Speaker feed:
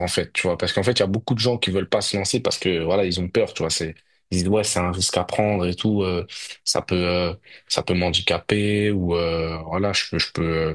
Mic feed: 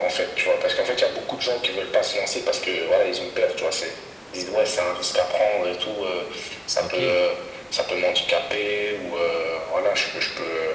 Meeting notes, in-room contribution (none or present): present